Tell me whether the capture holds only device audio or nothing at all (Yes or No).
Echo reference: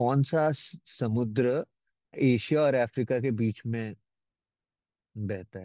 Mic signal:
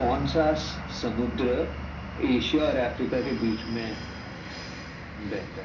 Yes